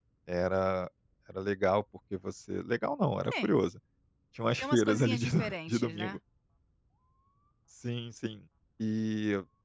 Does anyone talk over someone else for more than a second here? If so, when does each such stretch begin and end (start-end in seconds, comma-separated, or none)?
4.6-6.2